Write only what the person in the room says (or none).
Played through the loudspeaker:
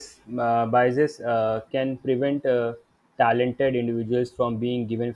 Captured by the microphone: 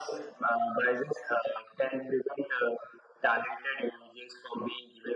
none